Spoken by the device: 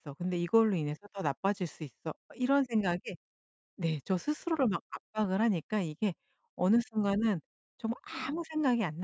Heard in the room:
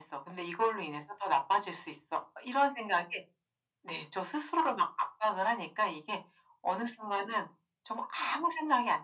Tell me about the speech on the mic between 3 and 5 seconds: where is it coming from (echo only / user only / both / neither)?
echo only